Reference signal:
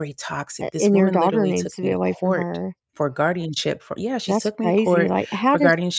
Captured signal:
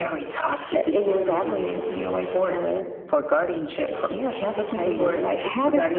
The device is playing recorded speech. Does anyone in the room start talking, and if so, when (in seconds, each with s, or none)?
4.8 s